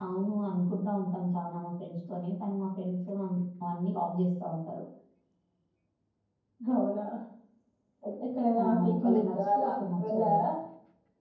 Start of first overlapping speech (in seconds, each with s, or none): 8.6 s